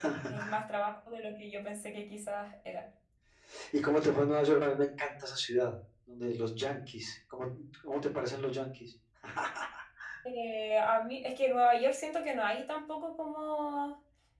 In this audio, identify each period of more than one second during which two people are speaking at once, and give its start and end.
none

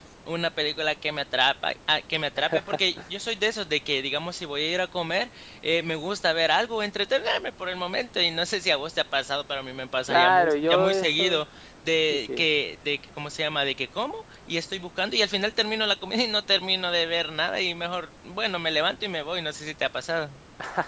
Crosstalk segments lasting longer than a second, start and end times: 10.1-11.4

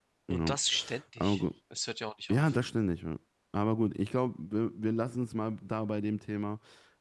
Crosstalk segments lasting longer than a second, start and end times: none

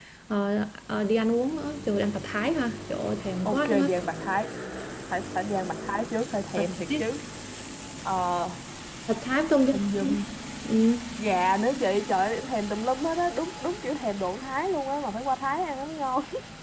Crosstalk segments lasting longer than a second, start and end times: none

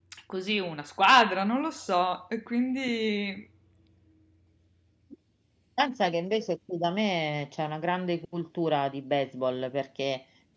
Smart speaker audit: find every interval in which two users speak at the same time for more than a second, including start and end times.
none

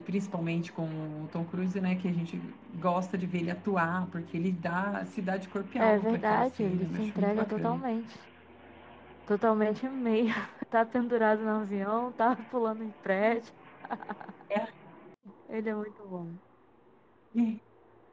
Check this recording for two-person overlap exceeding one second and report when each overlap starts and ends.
5.8-7.8

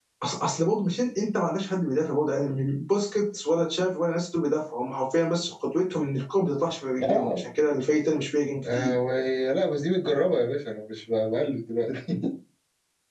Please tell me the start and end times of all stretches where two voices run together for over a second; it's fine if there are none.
none

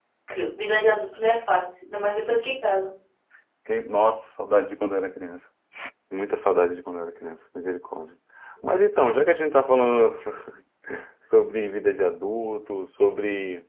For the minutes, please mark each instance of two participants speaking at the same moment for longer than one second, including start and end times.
none

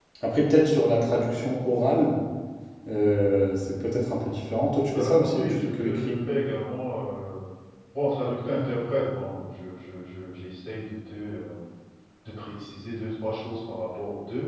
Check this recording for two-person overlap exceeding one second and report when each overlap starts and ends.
5.0-6.2

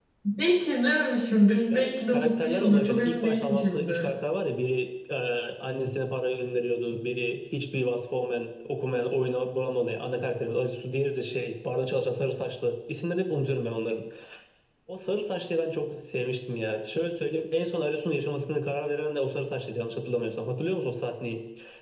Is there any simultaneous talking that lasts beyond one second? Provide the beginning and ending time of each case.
1.7-4.1

